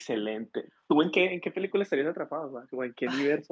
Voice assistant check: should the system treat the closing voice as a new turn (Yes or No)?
Yes